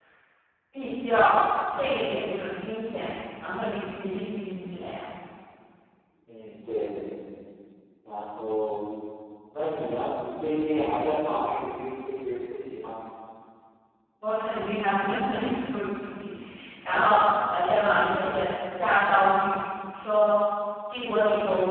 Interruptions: none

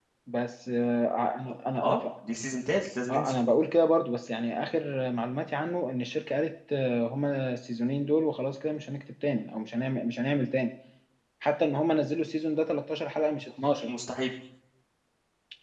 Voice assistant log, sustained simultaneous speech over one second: none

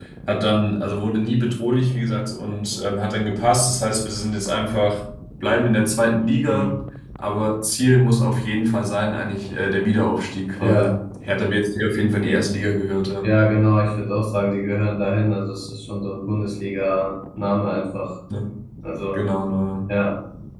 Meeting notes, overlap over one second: none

